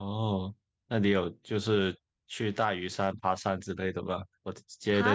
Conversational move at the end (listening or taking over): listening